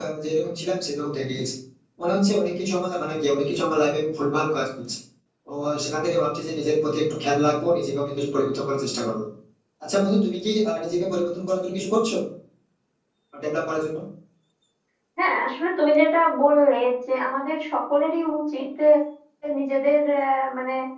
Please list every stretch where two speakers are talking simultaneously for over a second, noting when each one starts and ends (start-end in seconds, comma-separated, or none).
none